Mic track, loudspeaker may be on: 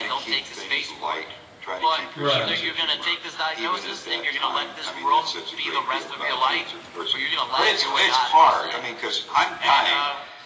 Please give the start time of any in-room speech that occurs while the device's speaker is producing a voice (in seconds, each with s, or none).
2.1 s